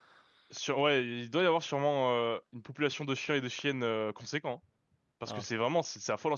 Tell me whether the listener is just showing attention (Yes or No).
Yes